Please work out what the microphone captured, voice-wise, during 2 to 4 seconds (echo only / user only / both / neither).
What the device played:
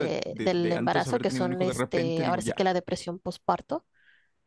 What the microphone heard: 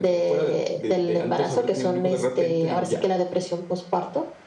echo only